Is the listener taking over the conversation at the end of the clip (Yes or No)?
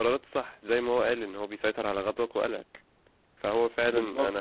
No